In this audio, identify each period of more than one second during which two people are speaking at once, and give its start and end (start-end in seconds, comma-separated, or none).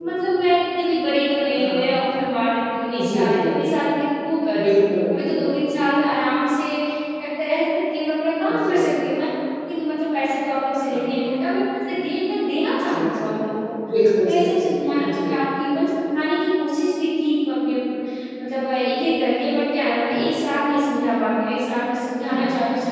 none